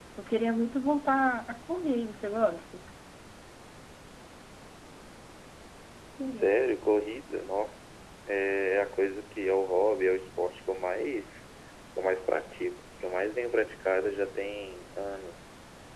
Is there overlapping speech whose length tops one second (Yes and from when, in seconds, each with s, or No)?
No